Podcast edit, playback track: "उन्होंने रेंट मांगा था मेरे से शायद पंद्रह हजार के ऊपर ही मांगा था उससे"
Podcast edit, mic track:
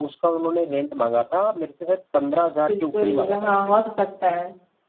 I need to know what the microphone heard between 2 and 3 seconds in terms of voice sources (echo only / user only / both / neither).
both